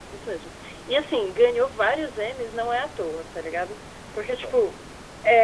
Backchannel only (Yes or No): Yes